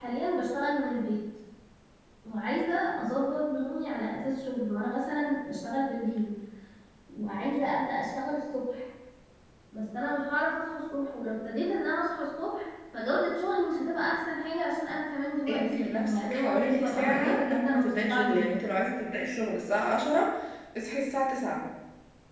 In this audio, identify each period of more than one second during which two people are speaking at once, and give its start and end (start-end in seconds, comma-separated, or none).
15.5-18.7